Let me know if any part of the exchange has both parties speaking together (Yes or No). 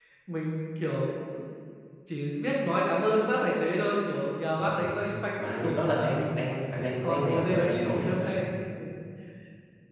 Yes